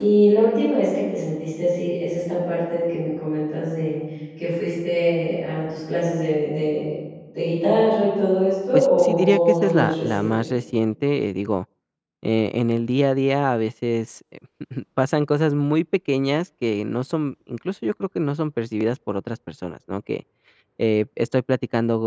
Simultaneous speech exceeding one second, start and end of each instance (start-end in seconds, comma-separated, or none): 8.7-10.5